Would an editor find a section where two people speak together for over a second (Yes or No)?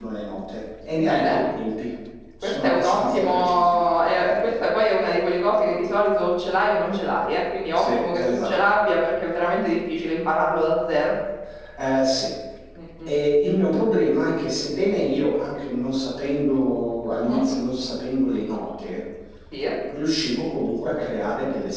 Yes